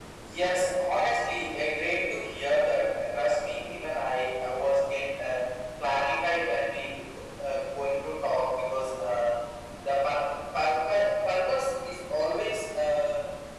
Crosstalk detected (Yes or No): No